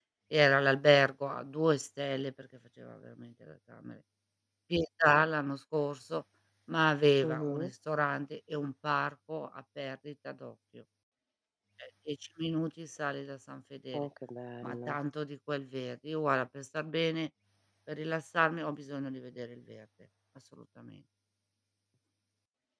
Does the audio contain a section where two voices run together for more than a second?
No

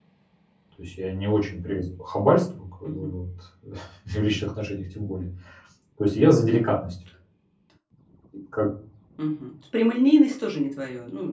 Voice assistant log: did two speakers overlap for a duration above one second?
No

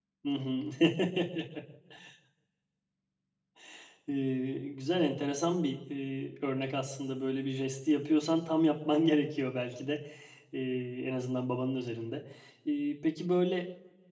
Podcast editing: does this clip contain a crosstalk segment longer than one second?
No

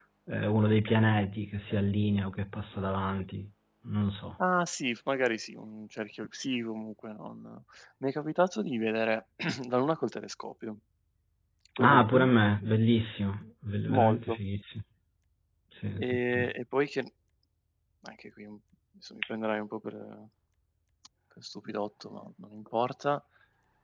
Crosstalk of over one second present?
No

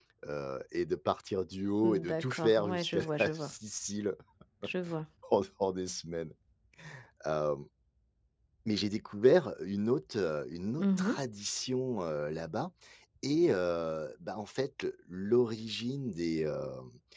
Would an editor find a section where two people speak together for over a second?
Yes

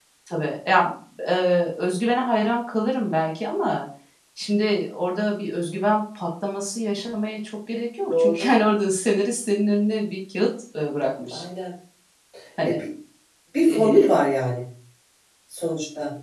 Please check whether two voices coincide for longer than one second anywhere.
No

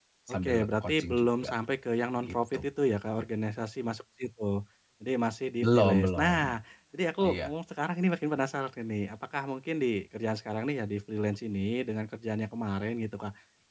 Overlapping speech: Yes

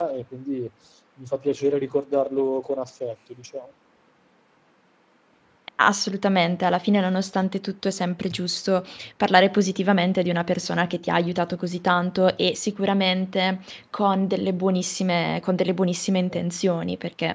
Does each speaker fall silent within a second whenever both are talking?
Yes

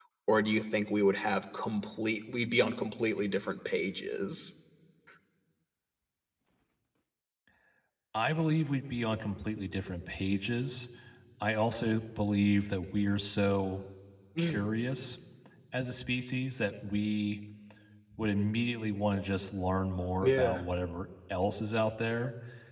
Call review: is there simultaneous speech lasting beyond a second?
No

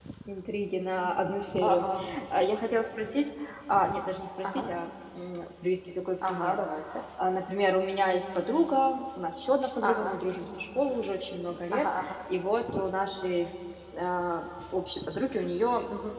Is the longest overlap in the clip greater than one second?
No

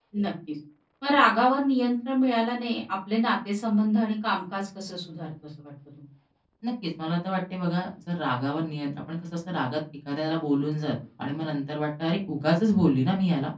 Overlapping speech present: No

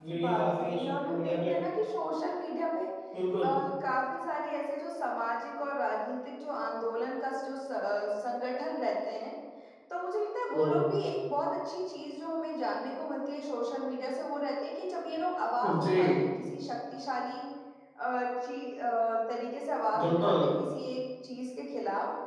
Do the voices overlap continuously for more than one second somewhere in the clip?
Yes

